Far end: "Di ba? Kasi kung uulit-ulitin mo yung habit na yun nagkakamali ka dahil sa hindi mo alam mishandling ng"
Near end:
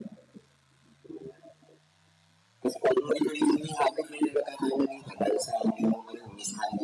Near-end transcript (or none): none